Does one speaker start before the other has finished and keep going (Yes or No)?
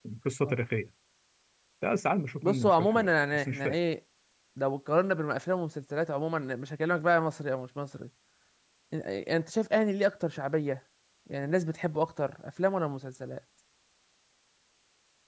Yes